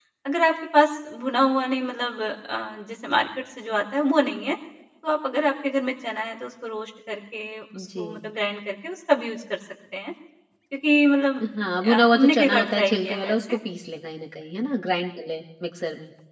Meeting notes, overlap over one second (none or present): present